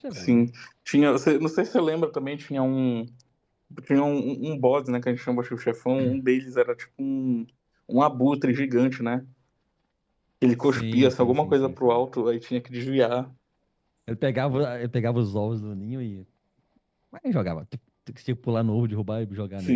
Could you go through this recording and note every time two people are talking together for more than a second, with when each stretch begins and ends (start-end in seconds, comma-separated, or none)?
10.8-12.0